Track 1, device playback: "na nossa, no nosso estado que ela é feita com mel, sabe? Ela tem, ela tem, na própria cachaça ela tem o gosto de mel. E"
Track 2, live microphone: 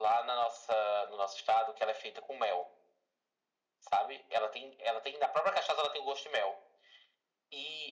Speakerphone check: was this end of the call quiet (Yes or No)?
Yes